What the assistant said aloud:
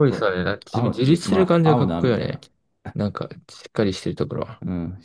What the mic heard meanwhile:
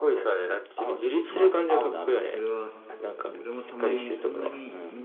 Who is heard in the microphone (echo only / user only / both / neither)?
both